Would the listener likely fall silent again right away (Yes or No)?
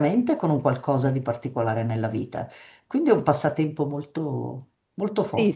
No